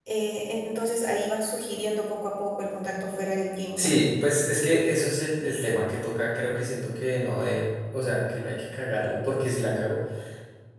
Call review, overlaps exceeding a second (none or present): none